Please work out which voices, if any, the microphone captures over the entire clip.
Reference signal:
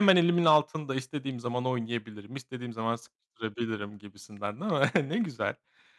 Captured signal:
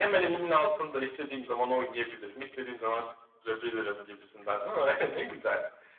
echo only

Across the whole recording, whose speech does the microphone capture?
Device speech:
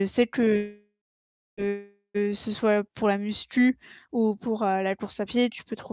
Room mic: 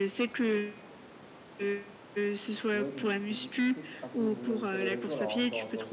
both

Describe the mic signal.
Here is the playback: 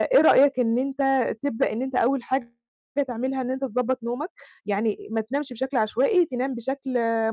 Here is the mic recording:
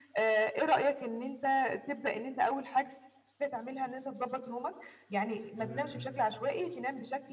both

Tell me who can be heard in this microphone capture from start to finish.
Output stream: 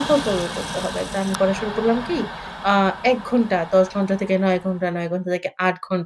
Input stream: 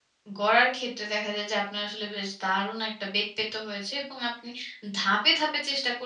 user only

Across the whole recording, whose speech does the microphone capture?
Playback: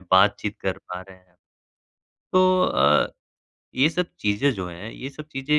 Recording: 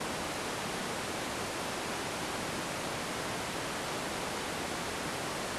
neither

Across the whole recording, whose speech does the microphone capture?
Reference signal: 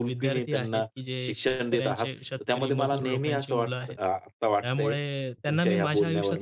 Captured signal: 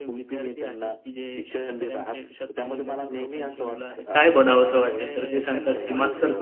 both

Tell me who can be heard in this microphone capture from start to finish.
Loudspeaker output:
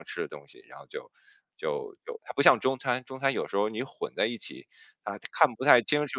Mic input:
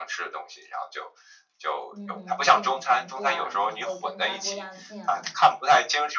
both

